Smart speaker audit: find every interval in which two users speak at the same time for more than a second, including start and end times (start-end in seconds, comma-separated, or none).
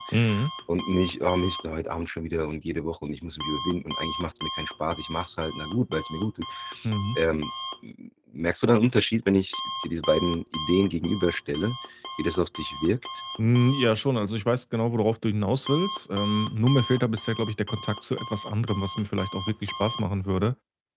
none